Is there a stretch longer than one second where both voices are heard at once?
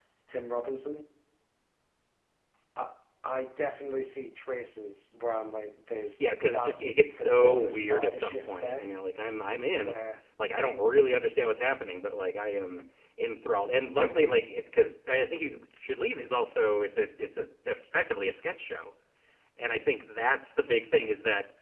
Yes, from 6.2 s

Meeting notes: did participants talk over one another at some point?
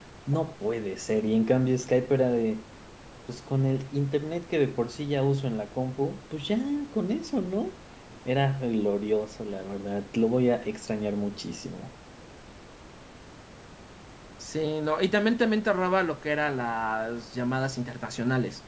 No

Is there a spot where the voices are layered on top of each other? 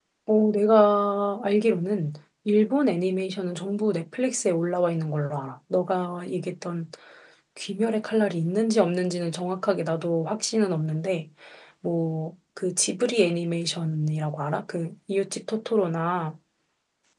No

